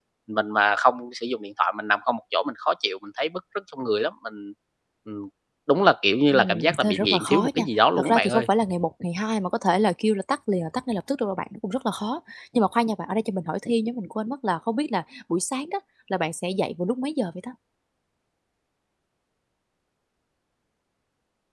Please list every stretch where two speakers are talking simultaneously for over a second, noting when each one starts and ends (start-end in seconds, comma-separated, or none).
6.3-8.5